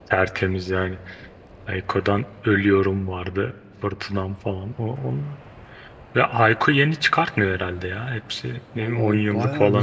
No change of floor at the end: No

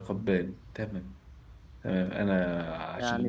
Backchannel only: No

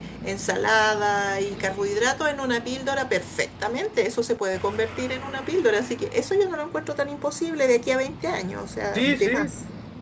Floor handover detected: Yes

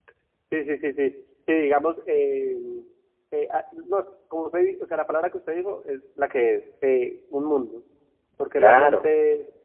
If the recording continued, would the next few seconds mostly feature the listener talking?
No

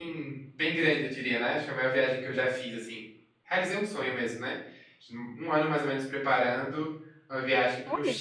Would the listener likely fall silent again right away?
Yes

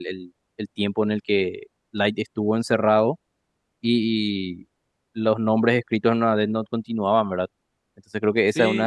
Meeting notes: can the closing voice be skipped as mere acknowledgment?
No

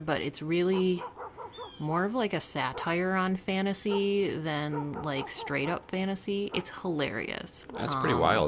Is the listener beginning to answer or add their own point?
Yes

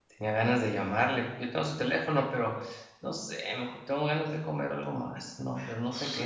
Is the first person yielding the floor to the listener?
Yes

